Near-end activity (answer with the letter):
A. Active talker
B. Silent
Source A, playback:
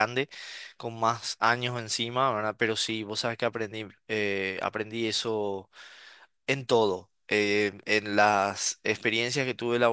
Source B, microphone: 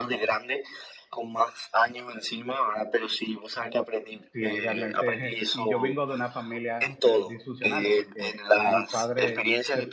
A